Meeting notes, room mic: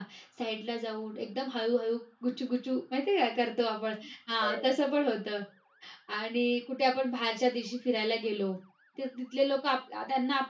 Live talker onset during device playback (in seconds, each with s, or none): 4.4 s